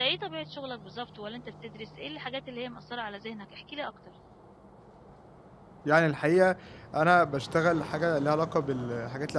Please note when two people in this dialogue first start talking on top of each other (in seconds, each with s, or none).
none